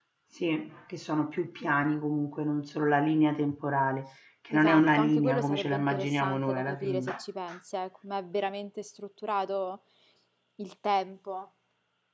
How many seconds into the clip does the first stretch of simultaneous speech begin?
4.5 s

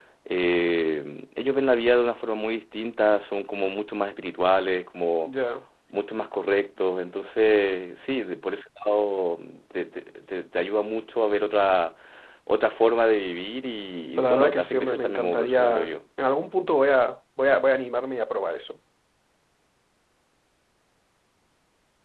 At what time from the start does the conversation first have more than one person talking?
14.2 s

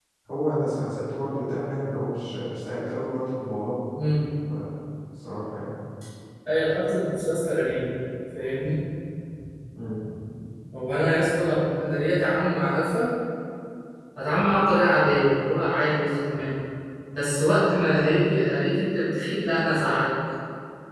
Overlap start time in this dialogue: none

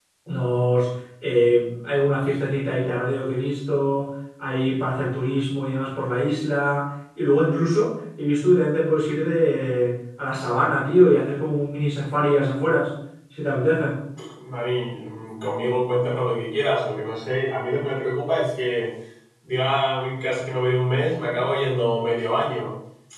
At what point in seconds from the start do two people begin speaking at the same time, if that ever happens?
none

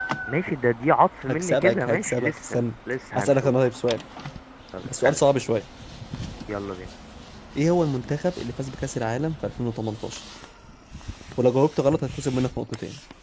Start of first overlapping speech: 1.3 s

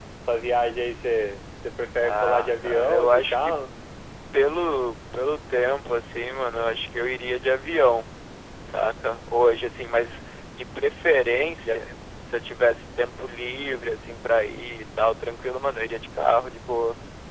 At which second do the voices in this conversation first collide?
2.0 s

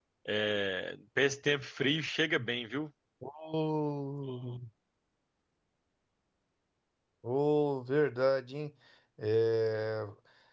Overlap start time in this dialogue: none

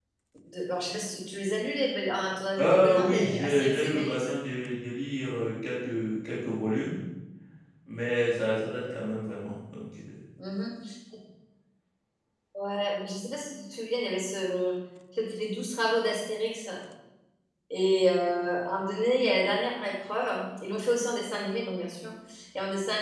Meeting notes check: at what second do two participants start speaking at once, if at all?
2.6 s

